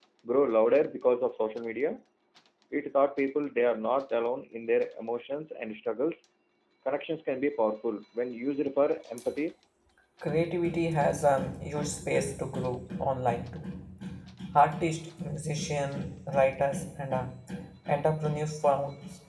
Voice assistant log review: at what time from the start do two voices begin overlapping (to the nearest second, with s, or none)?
none